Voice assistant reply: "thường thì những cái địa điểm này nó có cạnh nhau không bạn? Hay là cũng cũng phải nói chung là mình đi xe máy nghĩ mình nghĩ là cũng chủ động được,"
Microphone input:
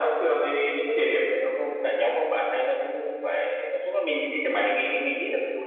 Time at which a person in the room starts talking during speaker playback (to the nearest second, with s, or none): none